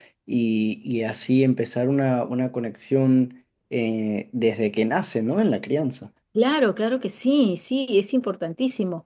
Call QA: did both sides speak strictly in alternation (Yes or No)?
Yes